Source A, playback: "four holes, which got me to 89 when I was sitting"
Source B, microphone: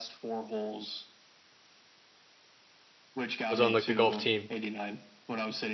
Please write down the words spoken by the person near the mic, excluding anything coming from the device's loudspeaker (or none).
was on like the golf team.